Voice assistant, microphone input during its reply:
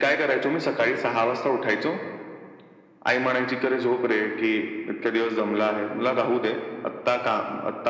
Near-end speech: none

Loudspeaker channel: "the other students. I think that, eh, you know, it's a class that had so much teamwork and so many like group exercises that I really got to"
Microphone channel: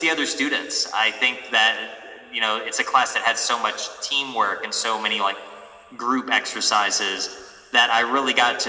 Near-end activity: none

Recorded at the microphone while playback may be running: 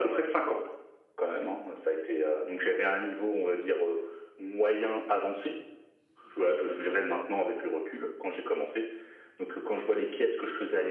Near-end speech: none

